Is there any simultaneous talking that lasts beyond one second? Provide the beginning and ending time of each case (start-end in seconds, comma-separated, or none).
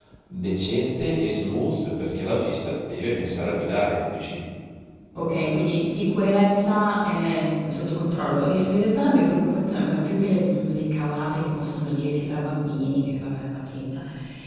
none